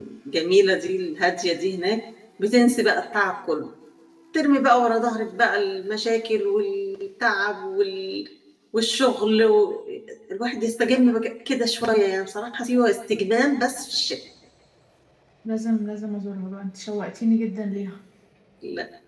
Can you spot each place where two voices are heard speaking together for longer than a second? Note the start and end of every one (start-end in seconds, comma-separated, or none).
none